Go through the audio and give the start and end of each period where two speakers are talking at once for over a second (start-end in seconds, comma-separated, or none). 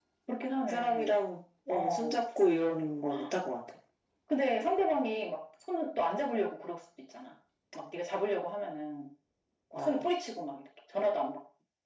none